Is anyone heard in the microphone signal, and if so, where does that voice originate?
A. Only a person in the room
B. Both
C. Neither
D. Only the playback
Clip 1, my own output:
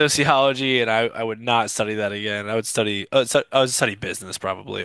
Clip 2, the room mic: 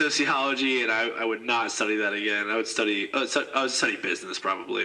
D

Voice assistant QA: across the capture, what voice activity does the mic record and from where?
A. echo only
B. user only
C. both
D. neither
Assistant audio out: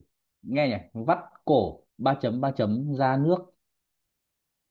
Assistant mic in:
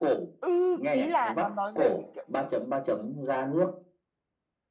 C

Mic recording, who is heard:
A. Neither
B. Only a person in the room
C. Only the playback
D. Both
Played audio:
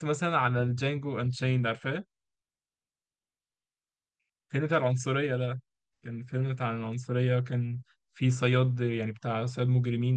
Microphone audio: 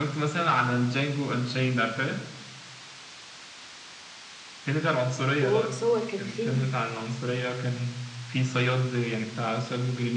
D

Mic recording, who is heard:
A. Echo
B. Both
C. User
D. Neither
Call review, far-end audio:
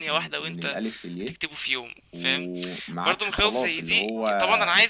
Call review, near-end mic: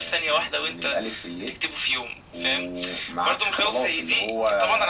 A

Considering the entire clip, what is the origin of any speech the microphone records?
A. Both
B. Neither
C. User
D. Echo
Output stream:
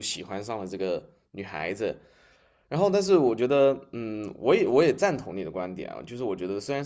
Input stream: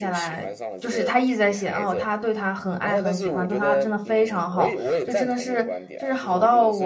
A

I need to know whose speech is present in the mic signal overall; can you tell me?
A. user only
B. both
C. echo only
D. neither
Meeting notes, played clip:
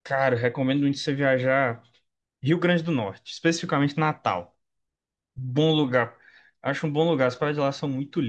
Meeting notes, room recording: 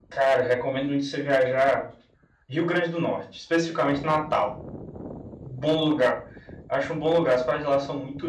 C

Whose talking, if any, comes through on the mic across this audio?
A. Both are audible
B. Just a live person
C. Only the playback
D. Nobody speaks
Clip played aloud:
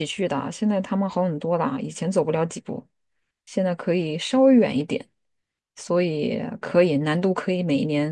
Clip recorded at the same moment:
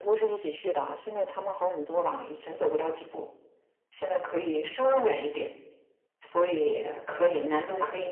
C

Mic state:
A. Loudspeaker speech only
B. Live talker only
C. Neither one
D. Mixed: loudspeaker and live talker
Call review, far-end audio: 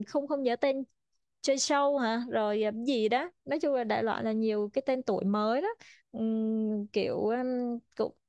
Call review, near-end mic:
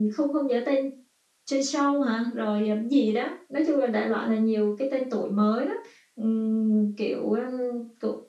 A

